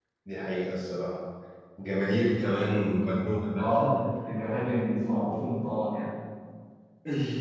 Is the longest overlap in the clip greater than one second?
No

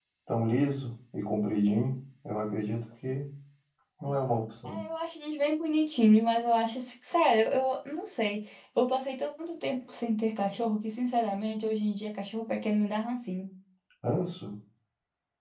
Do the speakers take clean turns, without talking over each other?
Yes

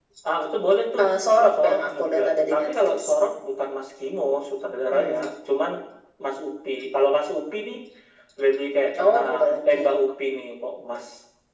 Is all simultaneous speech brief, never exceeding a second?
No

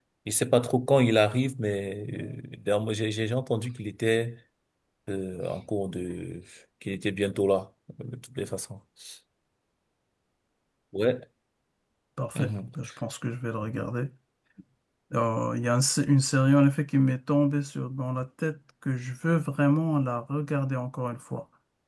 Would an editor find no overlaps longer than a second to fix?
Yes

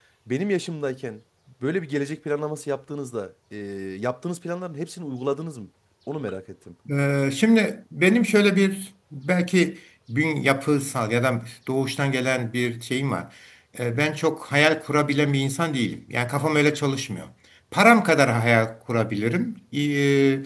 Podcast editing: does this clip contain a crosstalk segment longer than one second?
No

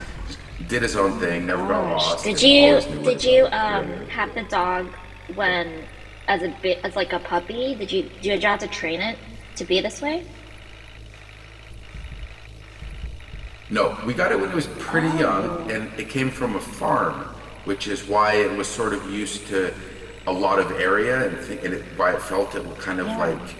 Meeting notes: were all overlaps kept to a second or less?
No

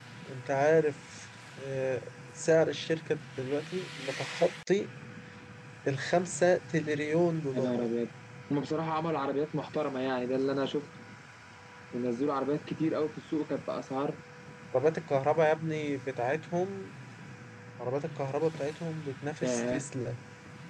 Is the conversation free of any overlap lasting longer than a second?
Yes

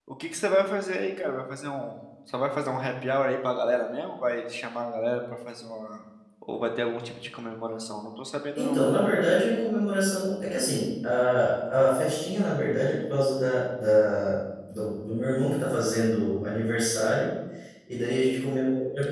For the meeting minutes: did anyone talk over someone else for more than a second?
No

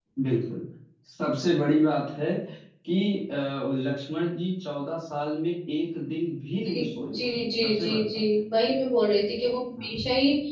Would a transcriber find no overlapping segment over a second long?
No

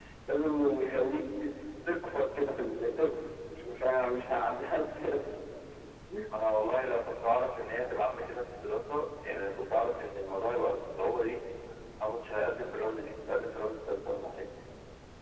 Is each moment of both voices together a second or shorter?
Yes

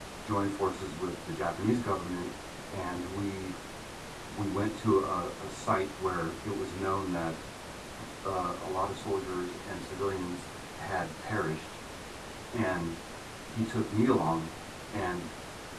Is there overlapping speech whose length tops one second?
No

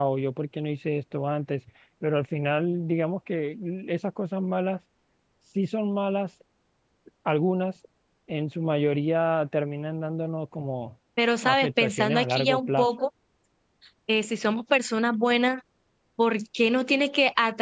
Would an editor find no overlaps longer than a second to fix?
No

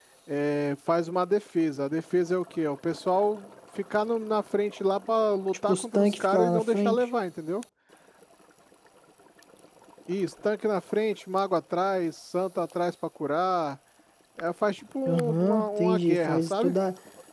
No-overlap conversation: No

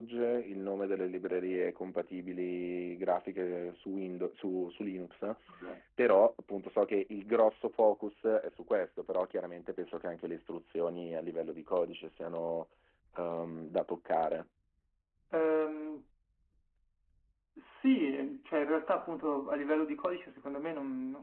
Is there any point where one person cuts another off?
No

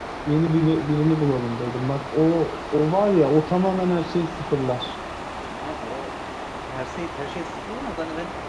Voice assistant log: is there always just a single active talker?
Yes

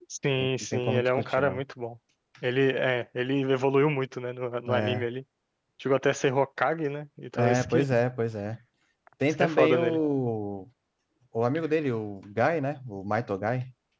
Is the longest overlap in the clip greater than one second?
Yes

